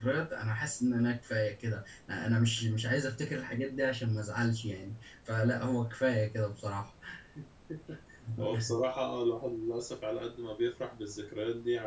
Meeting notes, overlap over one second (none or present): none